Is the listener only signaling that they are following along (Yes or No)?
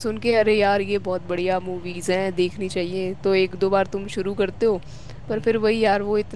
Yes